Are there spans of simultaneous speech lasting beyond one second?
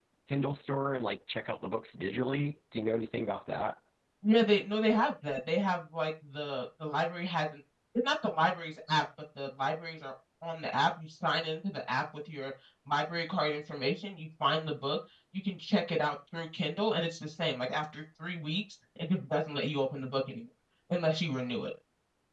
No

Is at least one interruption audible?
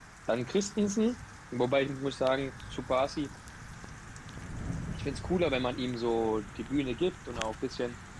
No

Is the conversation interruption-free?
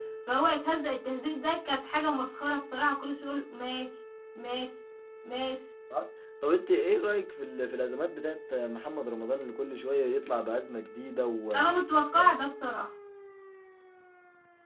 Yes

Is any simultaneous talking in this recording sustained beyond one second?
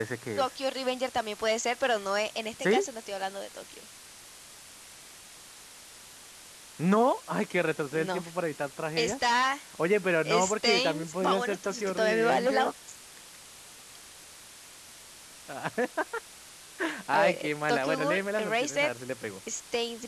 Yes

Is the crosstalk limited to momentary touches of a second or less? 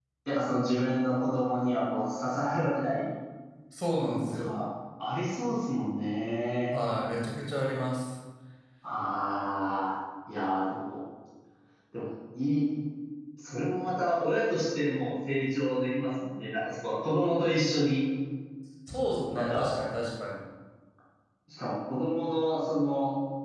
Yes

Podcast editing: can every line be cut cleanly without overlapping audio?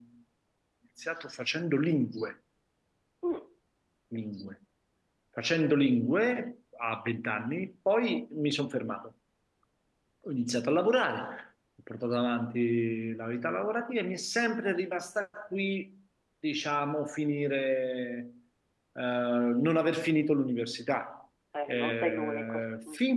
No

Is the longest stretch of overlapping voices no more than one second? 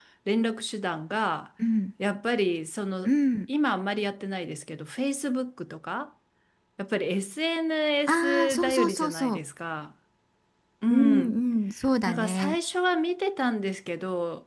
No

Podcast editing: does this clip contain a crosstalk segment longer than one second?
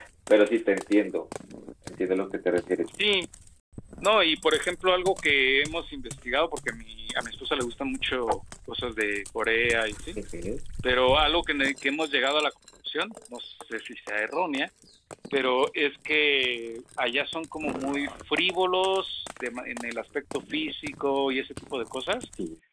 No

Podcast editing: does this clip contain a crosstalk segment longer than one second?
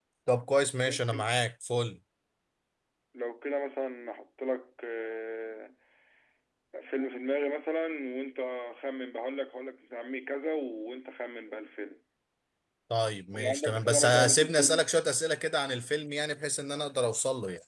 Yes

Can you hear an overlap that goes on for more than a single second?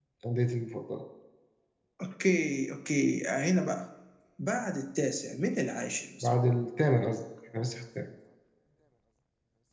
No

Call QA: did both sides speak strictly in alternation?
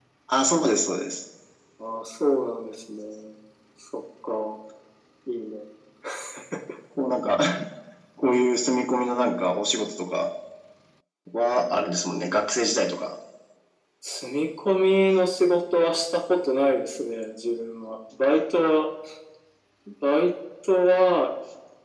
Yes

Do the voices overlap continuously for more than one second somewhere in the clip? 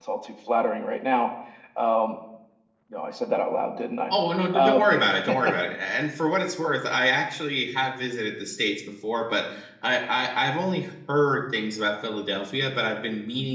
No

